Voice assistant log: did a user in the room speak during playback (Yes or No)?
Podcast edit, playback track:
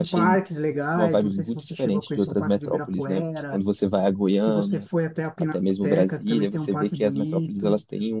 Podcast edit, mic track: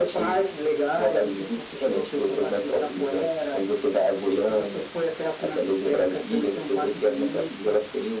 No